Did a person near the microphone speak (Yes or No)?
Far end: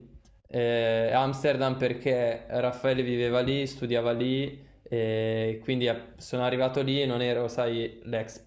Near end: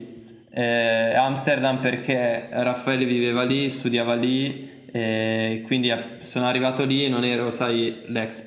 No